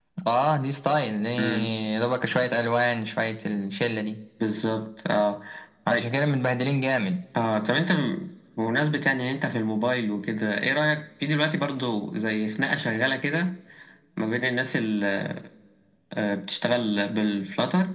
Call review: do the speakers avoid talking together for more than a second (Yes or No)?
Yes